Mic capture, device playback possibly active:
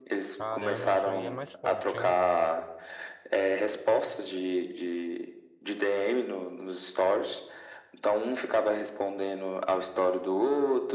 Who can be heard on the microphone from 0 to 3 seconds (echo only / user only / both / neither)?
both